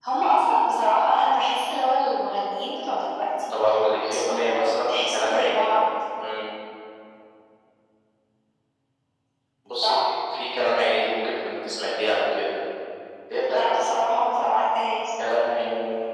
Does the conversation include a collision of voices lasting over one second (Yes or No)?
Yes